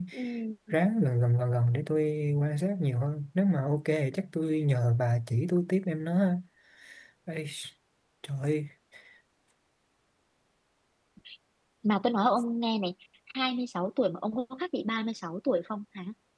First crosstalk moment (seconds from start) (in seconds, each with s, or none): none